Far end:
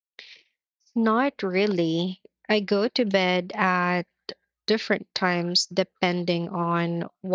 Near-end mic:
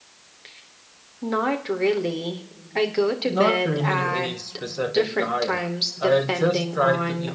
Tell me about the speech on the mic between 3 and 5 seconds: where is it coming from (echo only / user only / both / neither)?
both